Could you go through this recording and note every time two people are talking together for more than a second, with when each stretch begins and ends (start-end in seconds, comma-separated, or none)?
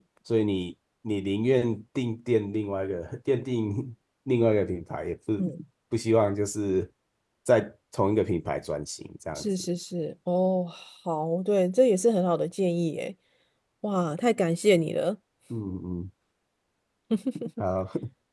none